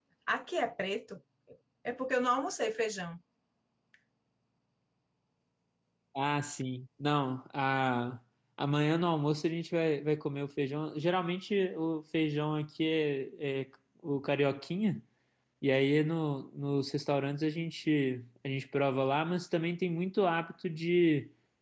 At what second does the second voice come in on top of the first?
none

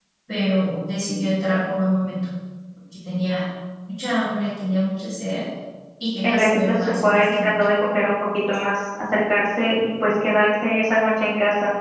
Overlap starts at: 6.2 s

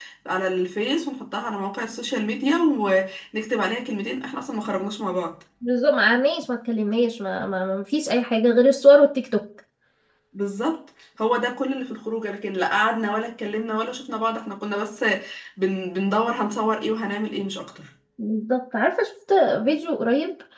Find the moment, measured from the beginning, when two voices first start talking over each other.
none

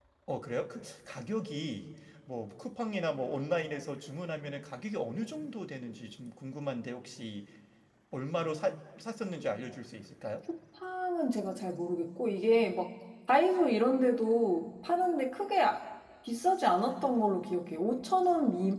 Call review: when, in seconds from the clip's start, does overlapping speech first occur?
none

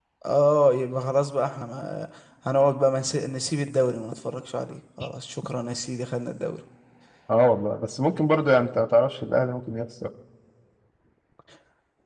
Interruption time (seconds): none

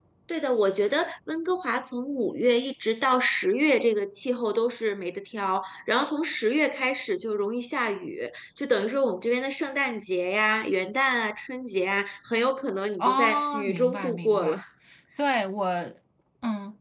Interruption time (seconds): 13.0 s

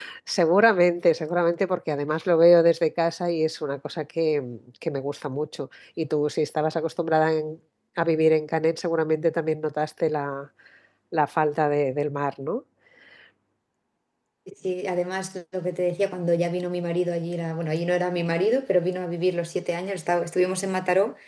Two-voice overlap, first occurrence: none

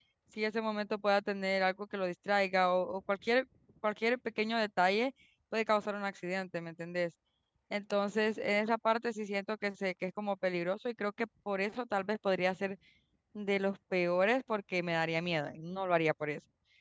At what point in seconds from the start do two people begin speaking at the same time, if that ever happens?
none

